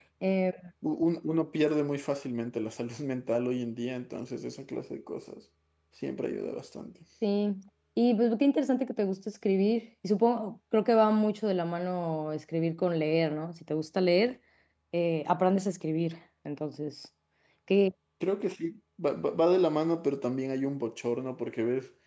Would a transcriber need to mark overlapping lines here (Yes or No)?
No